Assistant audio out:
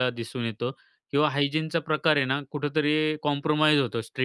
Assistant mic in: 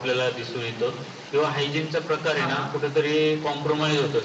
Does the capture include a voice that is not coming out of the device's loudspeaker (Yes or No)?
Yes